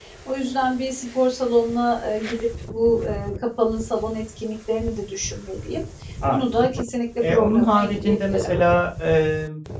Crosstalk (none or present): present